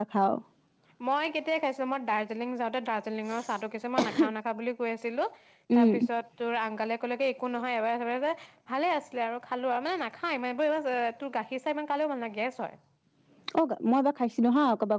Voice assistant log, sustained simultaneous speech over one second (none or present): none